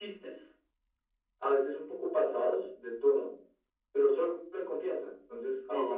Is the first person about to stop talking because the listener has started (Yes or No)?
No